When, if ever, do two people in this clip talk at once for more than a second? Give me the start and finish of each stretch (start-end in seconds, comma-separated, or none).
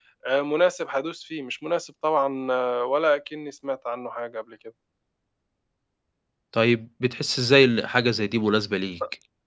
none